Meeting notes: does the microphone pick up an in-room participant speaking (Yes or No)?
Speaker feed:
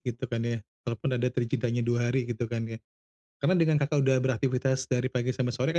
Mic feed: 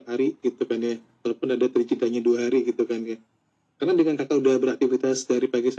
No